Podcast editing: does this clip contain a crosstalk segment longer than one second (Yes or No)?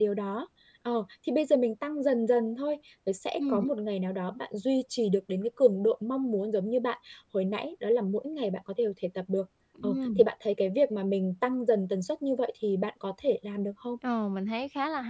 No